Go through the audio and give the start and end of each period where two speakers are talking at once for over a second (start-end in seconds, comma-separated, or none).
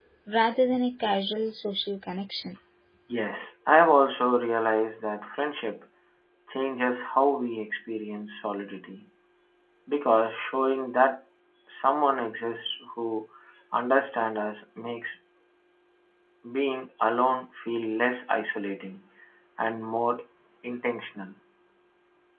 none